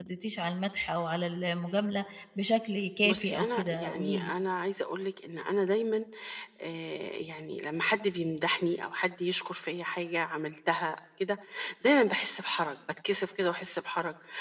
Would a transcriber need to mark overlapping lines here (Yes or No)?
Yes